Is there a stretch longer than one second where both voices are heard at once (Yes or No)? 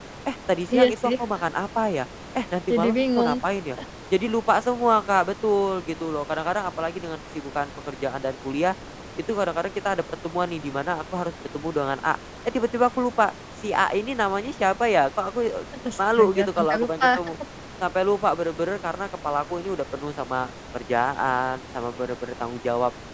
Yes